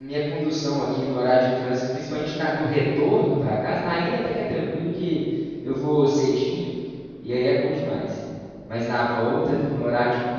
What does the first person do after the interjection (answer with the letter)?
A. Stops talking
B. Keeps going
B